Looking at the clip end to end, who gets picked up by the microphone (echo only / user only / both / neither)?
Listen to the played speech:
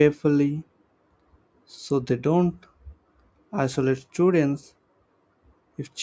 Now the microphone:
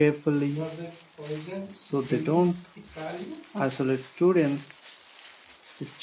both